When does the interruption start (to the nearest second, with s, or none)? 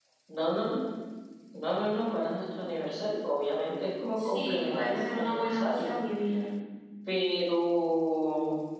4 s